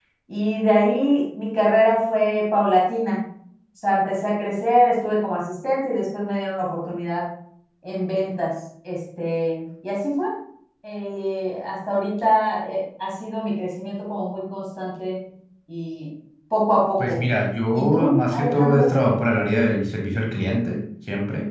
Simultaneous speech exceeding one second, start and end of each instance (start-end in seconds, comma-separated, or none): 17.7-19.0